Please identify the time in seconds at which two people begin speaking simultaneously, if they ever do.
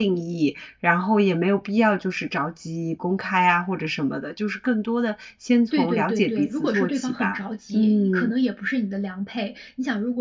6 s

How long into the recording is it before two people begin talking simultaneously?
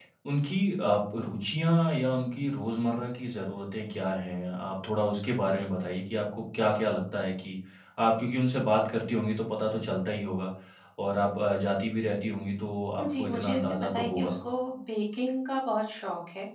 13 s

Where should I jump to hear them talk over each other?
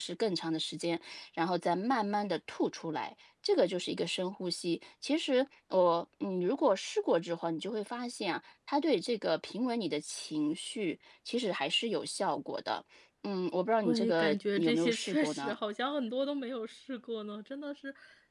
14 s

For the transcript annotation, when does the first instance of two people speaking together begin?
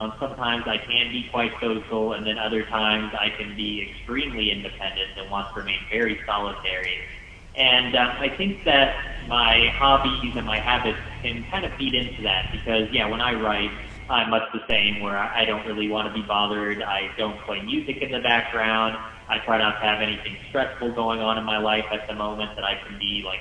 none

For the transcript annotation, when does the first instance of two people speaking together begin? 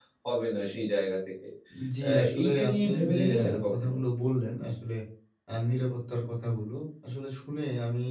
2 s

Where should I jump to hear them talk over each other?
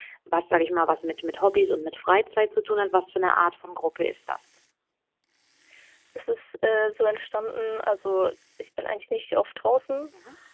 none

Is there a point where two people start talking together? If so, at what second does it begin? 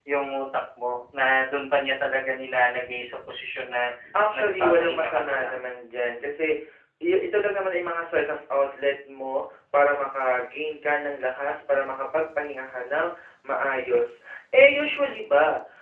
4 s

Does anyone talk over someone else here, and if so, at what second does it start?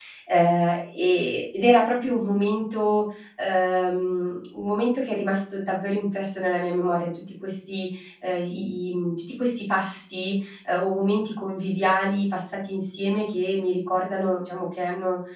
none

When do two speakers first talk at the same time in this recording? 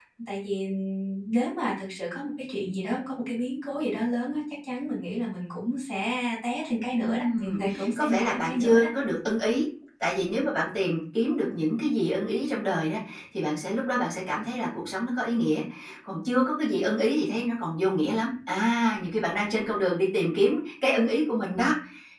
7 s

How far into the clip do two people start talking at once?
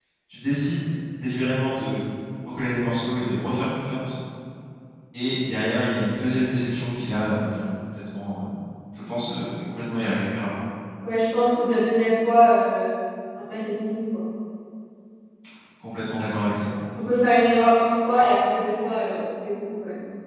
none

